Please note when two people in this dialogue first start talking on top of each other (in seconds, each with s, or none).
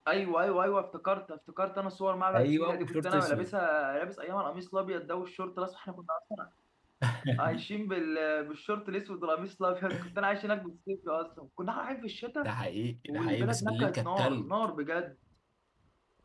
2.3 s